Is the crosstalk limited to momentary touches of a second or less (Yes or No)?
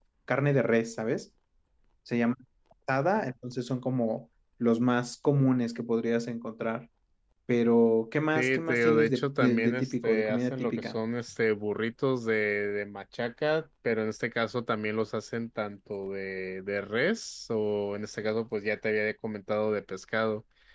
No